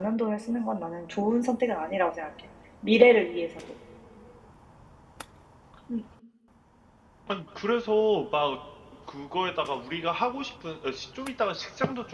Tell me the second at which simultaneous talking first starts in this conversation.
none

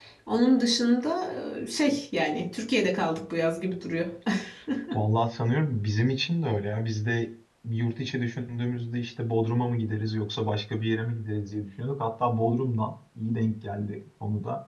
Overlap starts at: none

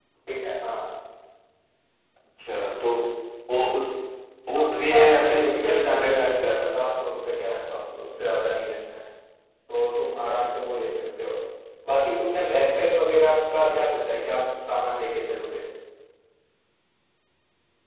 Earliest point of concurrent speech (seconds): 4.5 s

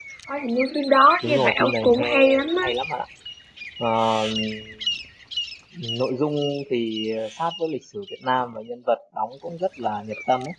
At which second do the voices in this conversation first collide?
1.2 s

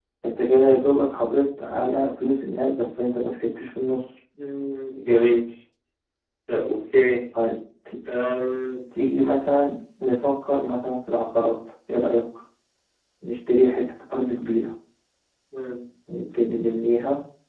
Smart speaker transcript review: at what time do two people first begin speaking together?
none

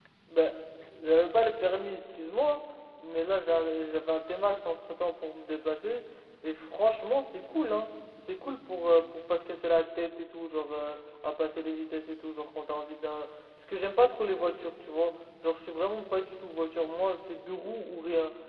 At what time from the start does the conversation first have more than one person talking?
none

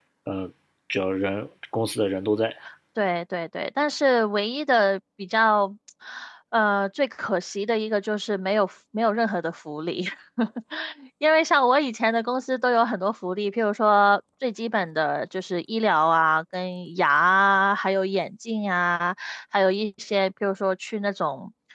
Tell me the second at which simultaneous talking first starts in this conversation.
none

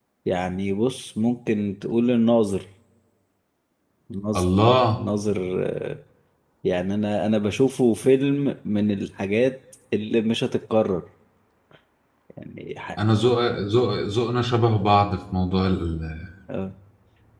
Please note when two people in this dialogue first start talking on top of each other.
none

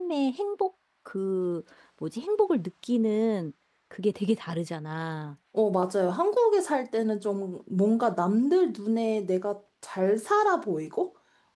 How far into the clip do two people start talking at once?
none

